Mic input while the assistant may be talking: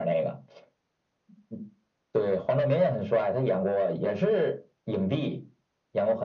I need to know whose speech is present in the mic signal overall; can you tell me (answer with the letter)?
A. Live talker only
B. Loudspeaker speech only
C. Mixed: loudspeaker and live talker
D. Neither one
B